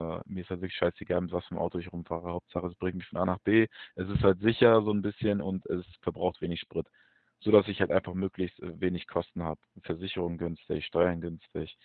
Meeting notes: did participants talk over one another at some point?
No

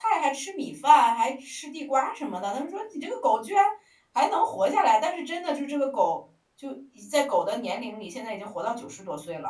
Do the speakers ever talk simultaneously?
No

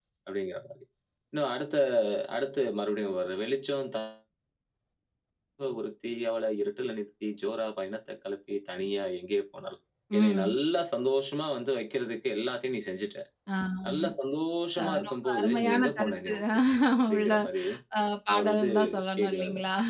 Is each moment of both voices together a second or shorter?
No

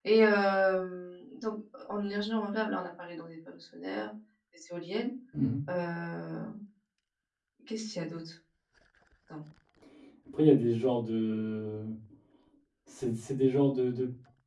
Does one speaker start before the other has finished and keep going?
No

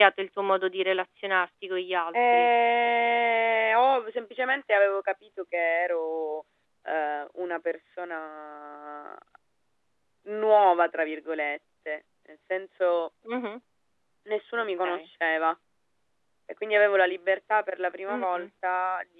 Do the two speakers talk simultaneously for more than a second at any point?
No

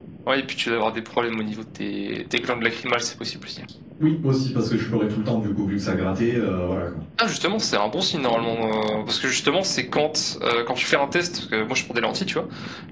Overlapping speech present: No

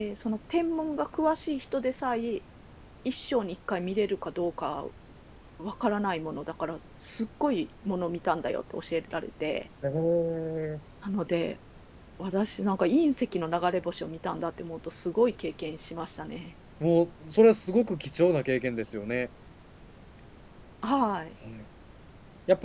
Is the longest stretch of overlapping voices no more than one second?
Yes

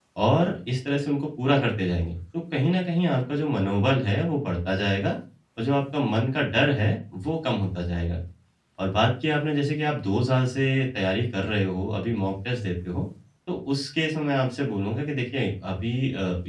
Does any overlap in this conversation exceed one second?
No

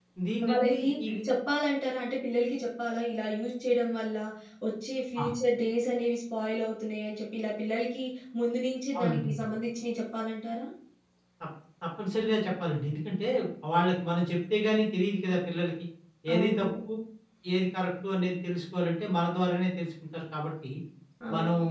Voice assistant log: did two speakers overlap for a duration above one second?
No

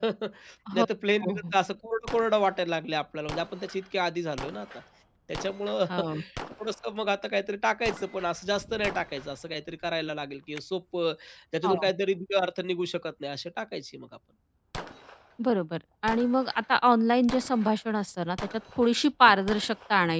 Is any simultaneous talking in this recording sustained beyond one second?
No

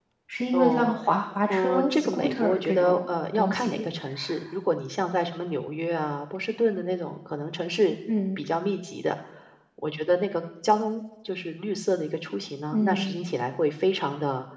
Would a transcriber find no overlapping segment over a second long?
No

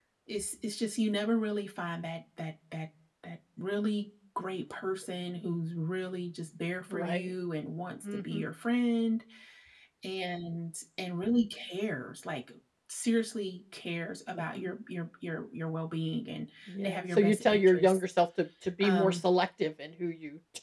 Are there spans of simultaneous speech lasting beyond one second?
Yes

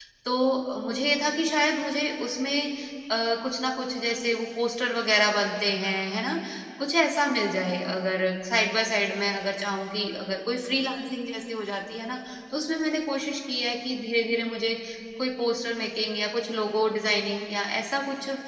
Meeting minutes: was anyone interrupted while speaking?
No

